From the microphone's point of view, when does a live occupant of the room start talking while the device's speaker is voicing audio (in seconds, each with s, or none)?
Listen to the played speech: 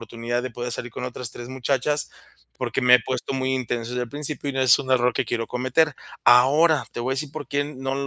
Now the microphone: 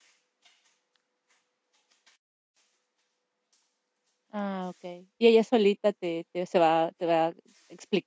4.3 s